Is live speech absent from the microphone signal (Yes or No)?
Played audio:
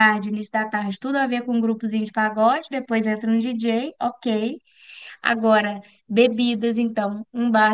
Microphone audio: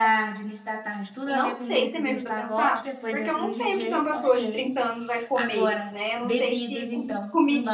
No